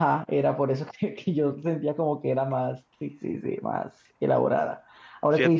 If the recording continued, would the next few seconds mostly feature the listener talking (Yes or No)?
No